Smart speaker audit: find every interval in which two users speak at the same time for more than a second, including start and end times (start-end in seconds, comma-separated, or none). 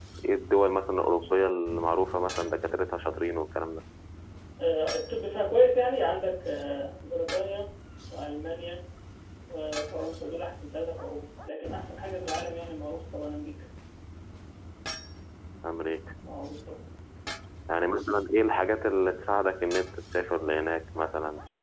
none